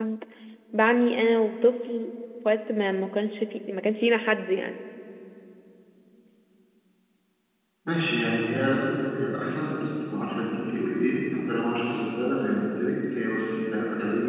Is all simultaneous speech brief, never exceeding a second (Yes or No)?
Yes